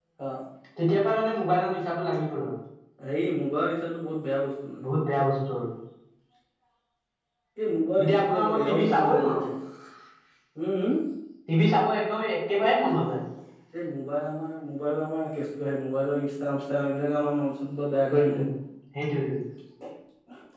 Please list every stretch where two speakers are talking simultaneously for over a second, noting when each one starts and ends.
8.0-9.4

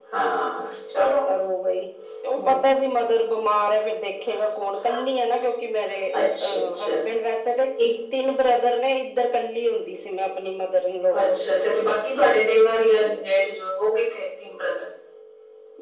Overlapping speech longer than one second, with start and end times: none

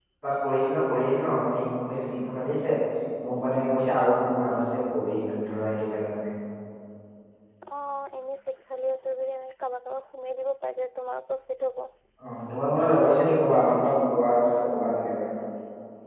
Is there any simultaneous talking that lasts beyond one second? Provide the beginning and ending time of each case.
none

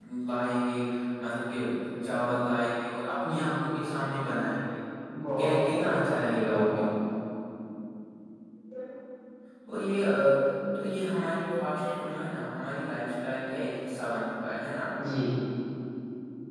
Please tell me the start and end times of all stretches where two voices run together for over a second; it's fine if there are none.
5.4-6.8

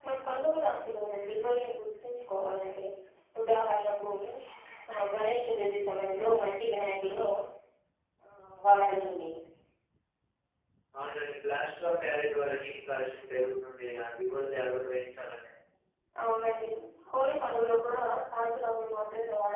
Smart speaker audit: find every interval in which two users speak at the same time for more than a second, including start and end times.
none

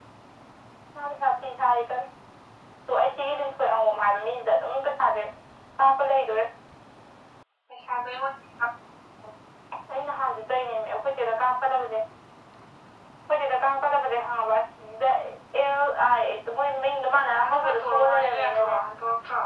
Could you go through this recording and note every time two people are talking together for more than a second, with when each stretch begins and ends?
17.4-18.8

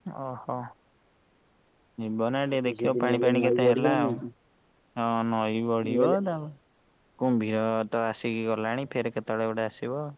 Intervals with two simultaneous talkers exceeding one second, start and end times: 2.6-4.1

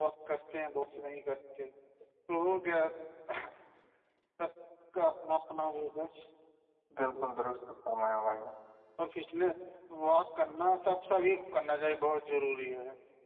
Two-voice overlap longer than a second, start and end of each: none

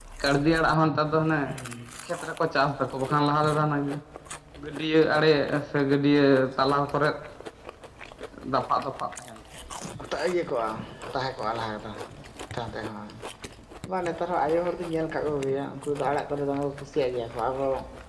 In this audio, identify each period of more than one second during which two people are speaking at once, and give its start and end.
none

